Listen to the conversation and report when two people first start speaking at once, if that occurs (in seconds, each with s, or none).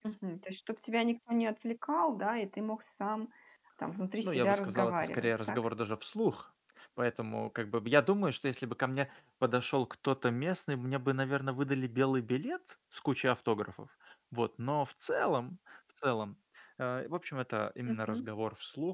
4.2 s